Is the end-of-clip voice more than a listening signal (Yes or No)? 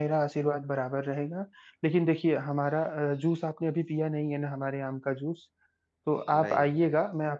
No